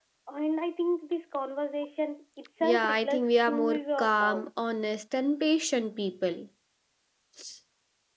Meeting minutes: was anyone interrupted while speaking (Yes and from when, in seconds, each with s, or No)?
Yes, from 2.6 s